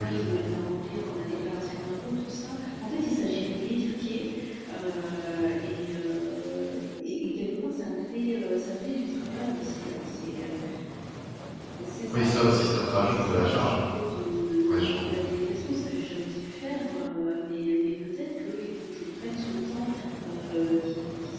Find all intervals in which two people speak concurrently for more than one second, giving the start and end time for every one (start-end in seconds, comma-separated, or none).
12.1-13.7